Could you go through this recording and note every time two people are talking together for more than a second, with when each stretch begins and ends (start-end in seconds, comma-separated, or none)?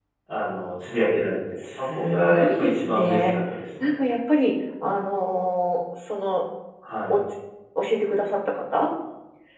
1.9-3.3